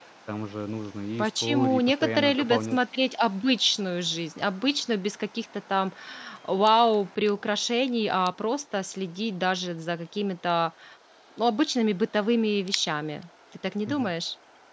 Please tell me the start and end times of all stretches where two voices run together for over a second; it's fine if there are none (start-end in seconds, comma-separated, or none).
1.2-2.8